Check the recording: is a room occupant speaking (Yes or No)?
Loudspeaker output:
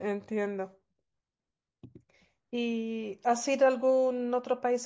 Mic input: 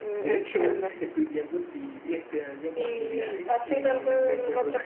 Yes